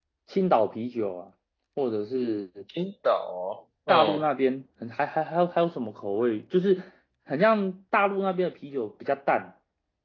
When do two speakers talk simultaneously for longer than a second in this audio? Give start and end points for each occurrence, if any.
none

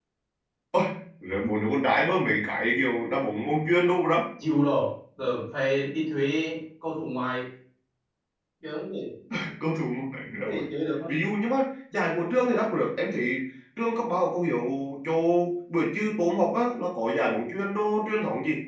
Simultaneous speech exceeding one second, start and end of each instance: none

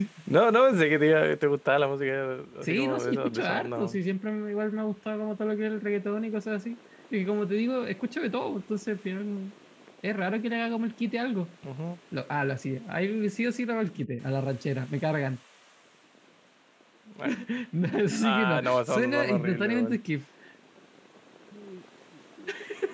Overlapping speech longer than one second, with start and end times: 2.6-4.0, 18.1-20.0

